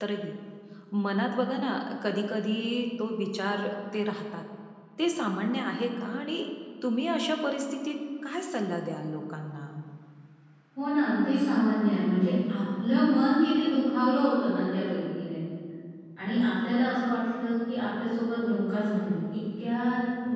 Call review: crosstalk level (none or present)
none